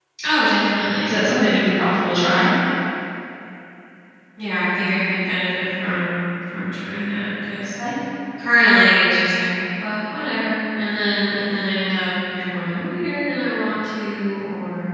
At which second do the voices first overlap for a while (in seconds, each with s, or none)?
none